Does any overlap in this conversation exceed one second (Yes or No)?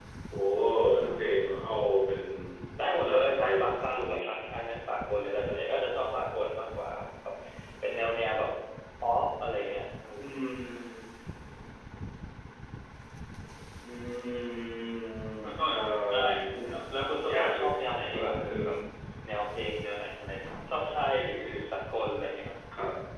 Yes